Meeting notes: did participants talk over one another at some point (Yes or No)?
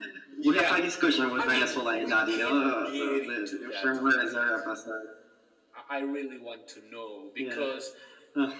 Yes